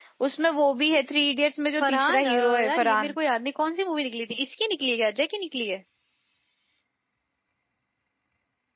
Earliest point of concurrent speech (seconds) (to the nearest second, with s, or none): 2 s